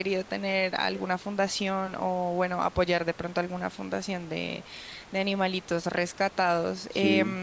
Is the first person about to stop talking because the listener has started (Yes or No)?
No